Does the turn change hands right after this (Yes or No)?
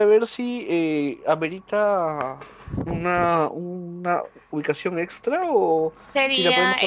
Yes